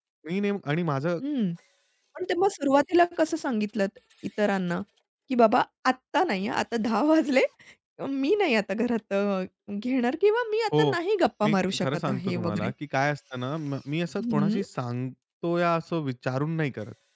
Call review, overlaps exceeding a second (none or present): present